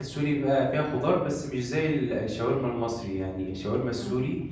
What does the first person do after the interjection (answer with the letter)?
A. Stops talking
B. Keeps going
B